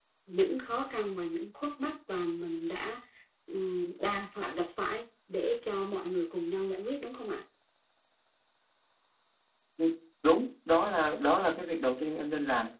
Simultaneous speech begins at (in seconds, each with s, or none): none